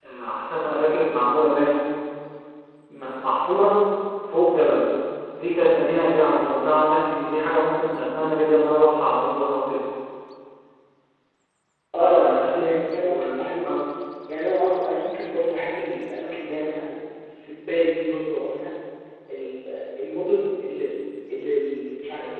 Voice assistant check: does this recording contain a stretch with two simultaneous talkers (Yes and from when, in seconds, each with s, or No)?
Yes, from 12.0 s